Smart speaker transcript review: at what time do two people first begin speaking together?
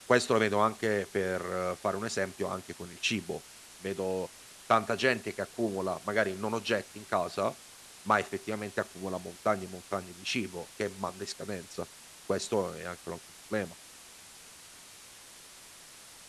none

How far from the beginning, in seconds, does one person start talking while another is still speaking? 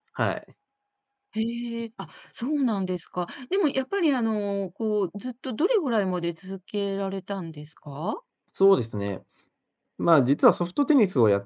none

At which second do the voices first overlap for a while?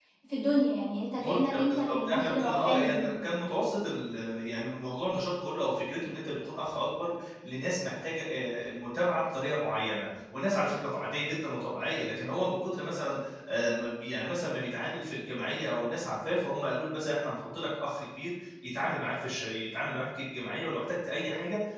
1.2 s

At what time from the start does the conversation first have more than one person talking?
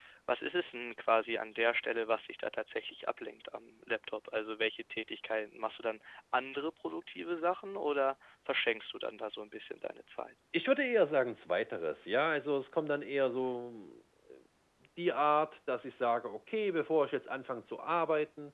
none

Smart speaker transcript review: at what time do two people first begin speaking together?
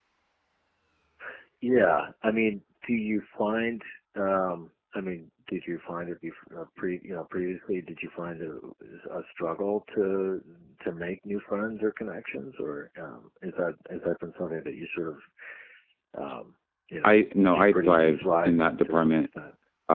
17.0 s

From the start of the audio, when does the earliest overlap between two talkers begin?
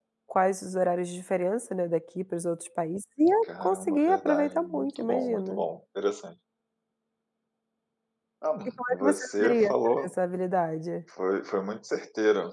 3.5 s

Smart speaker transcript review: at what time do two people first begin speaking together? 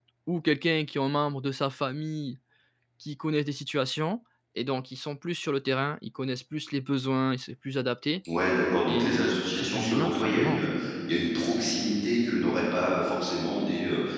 8.9 s

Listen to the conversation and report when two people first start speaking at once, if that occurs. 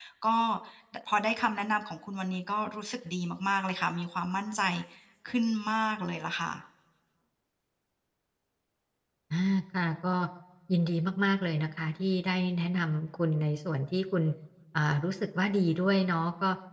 none

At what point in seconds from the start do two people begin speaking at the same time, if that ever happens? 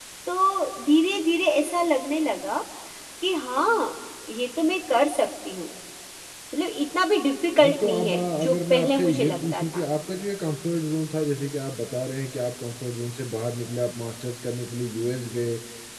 7.6 s

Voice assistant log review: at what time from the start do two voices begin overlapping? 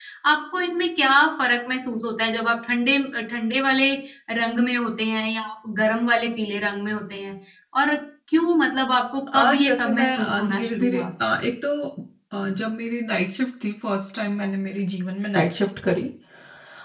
9.3 s

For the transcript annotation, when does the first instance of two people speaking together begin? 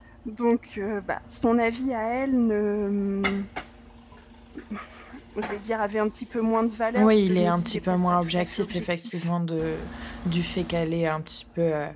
7.0 s

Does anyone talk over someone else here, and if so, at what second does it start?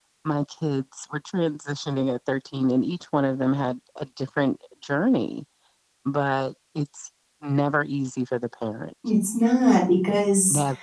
none

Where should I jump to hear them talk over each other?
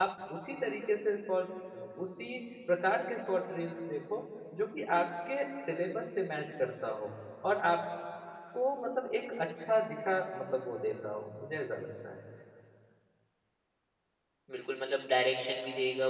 none

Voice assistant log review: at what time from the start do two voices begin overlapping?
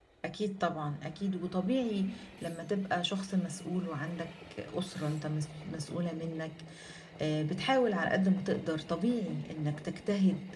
none

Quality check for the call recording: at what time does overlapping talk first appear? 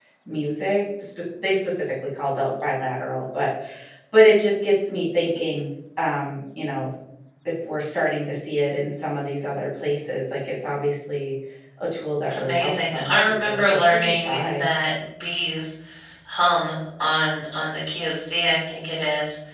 12.3 s

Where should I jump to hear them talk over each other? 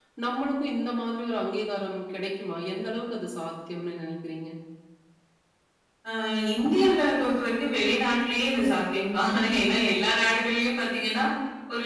none

